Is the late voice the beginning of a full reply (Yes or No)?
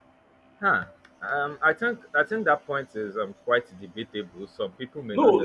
Yes